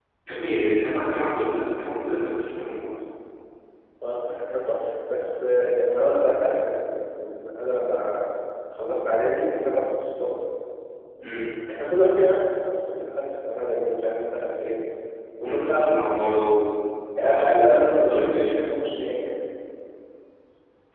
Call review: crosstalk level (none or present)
present